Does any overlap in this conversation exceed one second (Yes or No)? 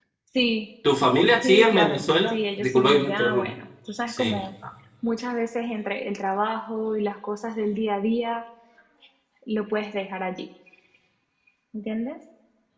Yes